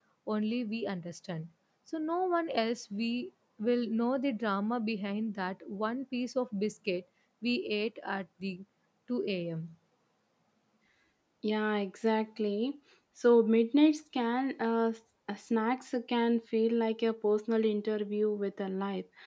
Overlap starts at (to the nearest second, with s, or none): none